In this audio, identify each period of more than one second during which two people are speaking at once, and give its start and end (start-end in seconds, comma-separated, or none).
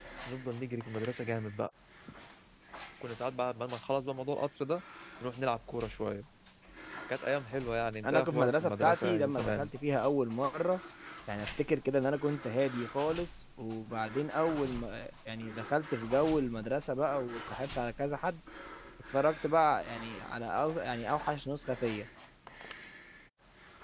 8.0-9.7